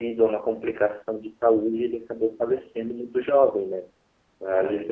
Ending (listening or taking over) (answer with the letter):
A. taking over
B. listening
B